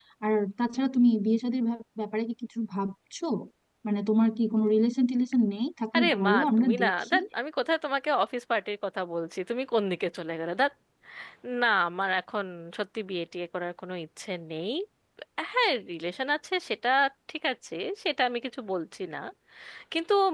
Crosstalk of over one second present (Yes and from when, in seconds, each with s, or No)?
Yes, from 5.9 s